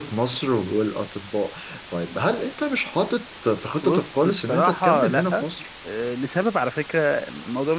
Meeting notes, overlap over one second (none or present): present